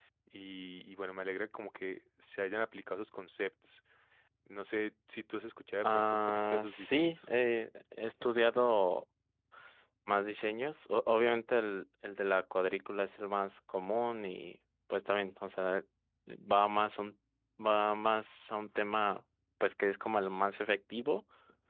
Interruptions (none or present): present